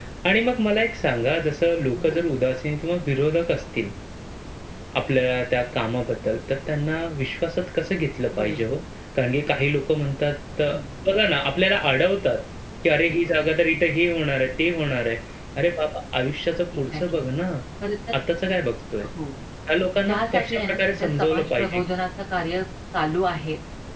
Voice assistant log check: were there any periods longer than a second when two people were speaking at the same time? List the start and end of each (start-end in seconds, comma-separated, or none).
20.0-21.8